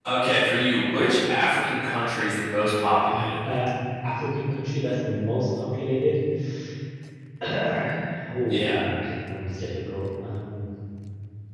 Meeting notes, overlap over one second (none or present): none